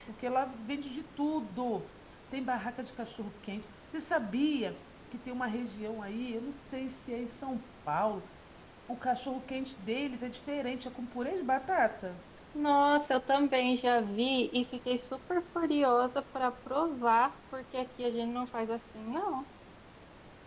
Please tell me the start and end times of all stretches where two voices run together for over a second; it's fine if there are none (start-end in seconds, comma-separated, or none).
none